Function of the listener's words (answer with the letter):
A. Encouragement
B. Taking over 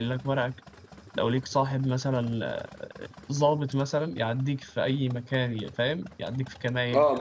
B